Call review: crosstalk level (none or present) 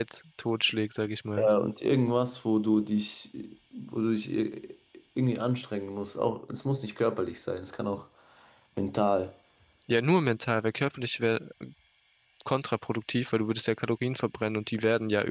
none